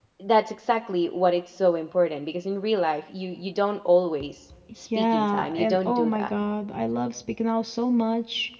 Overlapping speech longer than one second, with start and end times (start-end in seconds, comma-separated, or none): 5.0-6.3